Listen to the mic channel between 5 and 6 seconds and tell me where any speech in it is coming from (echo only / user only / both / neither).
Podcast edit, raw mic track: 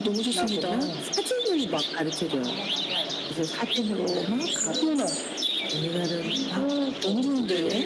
both